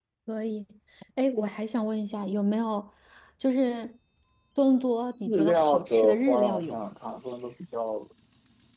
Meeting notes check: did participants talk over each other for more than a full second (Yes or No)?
Yes